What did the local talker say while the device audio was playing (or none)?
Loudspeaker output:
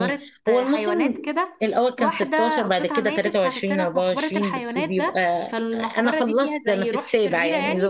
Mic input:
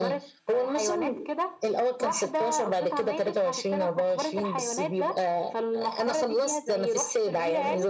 none